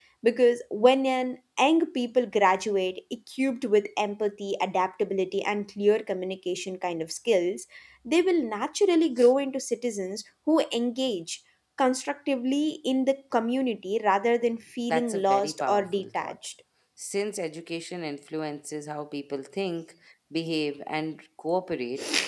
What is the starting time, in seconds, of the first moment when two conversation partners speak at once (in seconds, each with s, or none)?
14.9 s